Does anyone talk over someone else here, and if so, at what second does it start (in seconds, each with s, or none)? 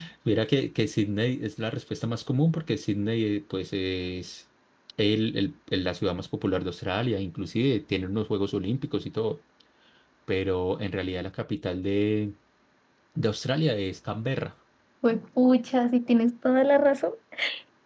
none